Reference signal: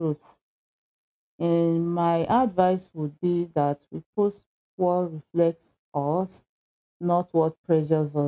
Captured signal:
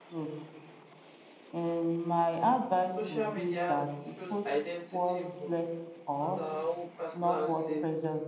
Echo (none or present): present